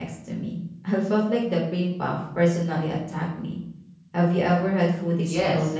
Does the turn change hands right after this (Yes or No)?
Yes